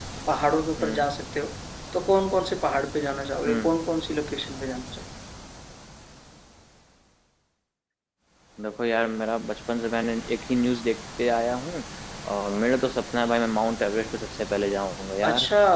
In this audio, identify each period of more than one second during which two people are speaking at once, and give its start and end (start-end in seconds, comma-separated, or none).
none